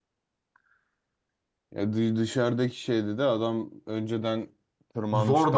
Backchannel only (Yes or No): No